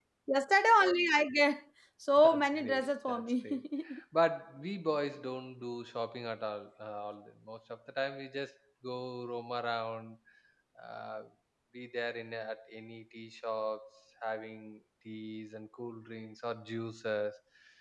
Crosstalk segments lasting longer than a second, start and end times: 2.2-3.6

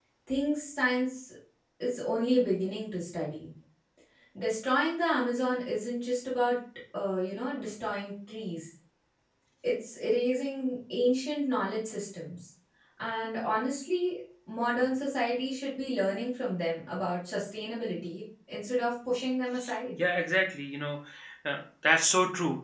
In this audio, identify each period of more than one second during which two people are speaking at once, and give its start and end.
none

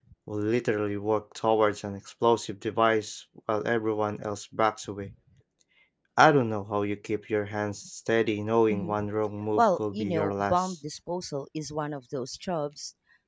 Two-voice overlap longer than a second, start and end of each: 9.6-10.8

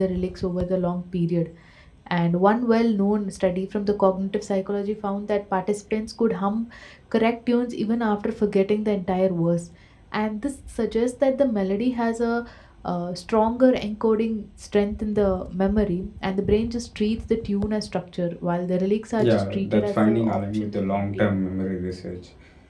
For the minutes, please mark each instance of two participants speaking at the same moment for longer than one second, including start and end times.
19.2-21.4

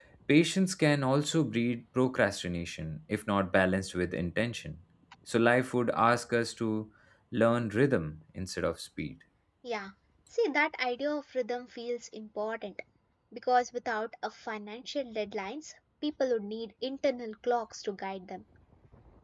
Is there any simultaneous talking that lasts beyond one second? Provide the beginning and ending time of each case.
none

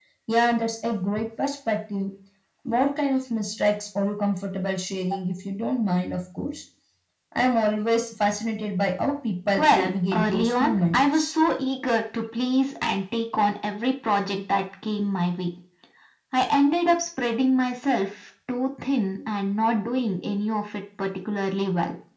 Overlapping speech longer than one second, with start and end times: 9.6-11.3

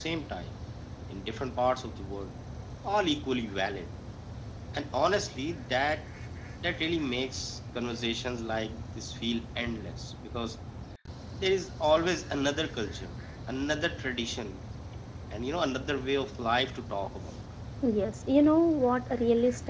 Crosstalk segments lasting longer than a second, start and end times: none

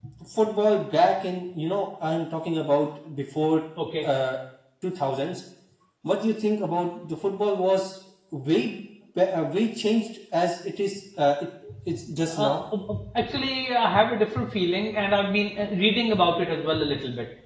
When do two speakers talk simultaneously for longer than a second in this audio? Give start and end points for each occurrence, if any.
none

